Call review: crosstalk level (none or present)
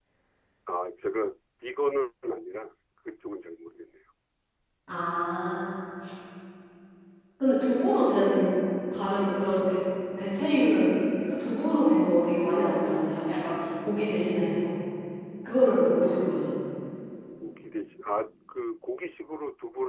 none